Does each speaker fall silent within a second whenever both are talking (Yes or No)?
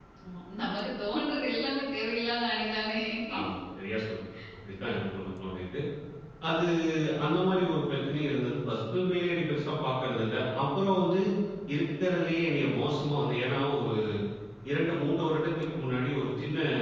Yes